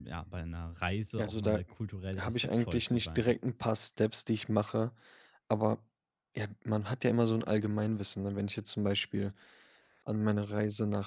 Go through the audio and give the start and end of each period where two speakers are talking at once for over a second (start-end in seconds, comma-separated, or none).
2.2-3.4